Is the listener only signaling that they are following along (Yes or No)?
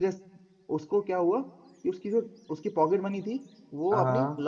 Yes